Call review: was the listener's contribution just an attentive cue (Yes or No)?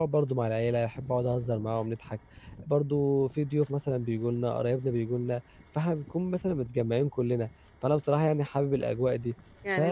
No